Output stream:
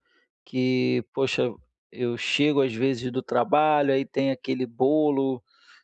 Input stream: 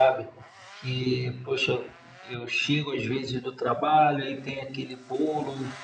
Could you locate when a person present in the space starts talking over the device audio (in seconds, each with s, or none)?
none